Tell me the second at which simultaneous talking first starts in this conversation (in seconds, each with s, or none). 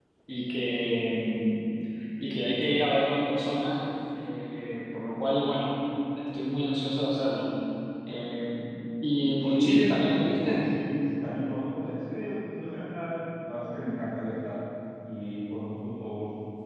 9.4 s